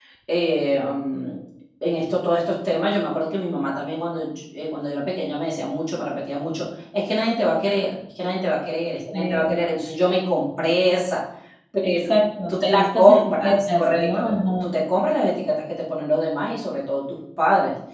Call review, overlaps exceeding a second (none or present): present